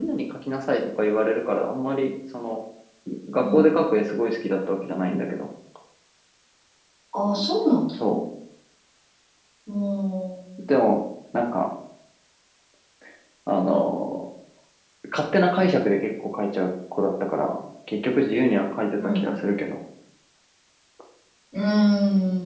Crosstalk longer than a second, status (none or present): none